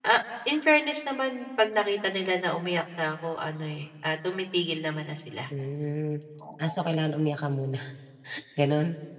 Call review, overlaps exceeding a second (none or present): none